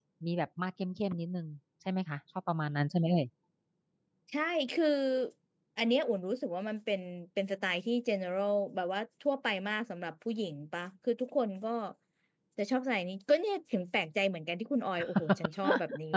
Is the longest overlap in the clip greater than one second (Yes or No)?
No